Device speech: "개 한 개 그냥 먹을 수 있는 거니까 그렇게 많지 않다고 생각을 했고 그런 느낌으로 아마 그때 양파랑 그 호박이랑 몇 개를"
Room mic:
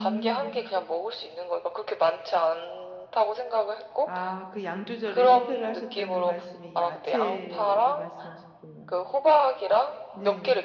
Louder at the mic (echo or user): echo